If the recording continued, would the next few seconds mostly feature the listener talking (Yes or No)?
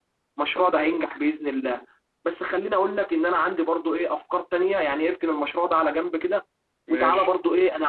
No